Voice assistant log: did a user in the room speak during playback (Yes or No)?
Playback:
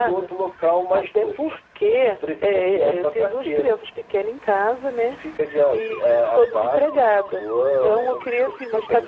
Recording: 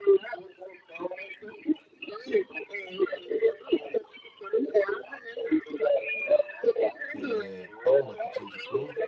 Yes